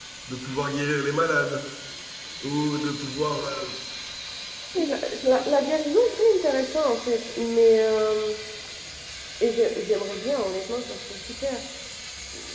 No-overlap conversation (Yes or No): Yes